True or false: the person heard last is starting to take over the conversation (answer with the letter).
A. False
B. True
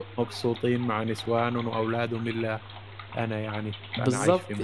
B